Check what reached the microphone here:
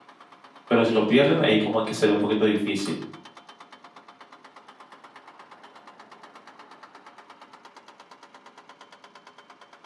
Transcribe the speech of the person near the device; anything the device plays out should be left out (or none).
Pero si lo pierden, ahí como que sería un poquito difícil.